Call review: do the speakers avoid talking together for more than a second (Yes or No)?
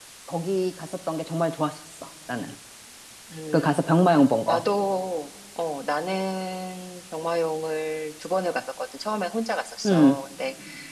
Yes